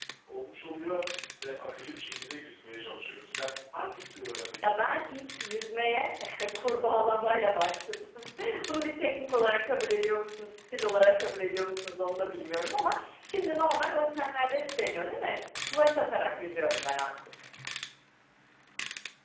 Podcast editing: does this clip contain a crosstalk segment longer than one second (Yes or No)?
No